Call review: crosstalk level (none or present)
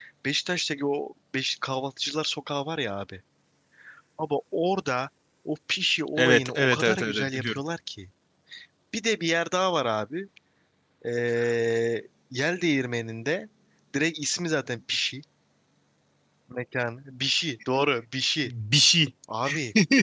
present